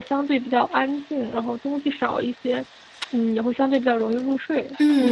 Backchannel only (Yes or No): No